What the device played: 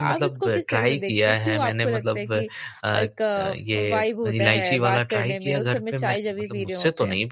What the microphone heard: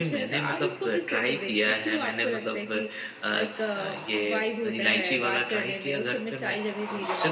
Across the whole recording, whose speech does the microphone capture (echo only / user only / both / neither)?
echo only